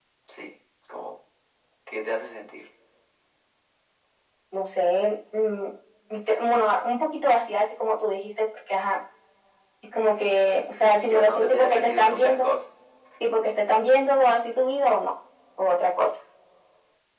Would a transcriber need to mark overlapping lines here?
Yes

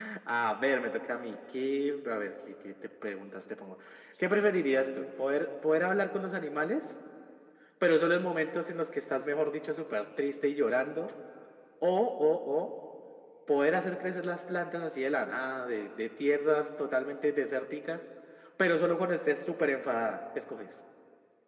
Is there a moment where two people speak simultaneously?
No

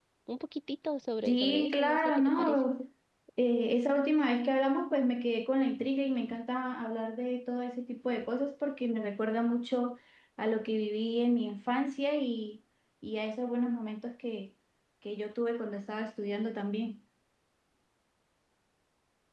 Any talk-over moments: Yes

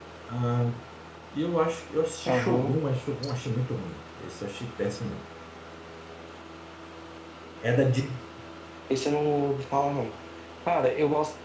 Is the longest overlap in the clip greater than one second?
No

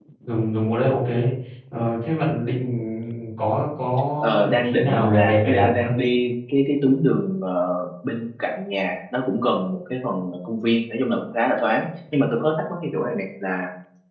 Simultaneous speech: Yes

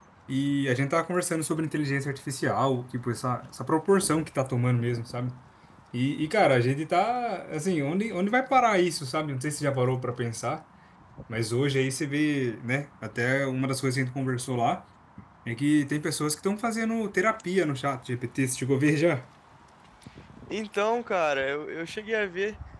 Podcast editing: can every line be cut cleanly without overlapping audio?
Yes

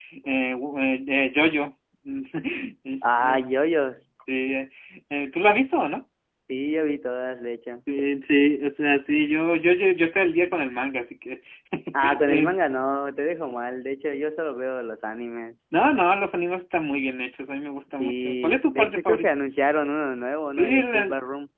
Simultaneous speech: Yes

